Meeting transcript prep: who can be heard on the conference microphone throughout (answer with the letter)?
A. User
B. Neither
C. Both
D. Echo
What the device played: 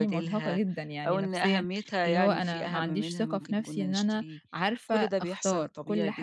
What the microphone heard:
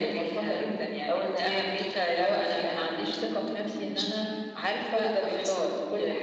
D